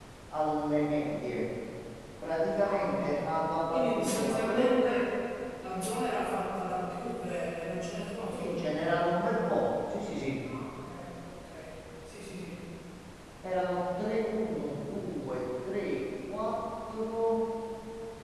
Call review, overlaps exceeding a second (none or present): present